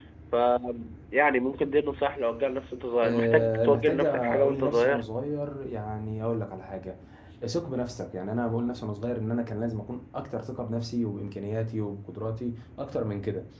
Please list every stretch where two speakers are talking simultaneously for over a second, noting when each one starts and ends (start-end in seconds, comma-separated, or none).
3.0-5.0